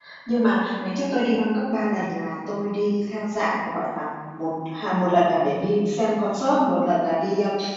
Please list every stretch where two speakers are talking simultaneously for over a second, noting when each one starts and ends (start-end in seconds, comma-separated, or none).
none